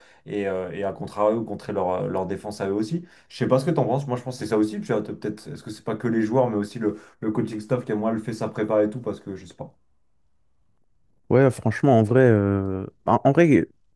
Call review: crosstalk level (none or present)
none